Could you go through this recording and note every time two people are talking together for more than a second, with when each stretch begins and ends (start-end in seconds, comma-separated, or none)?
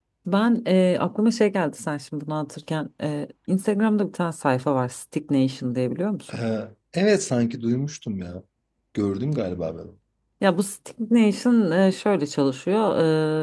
none